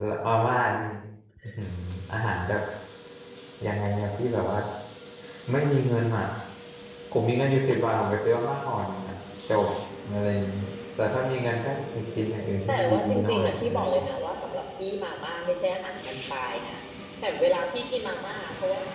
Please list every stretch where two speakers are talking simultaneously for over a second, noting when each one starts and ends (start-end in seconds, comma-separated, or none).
12.7-14.1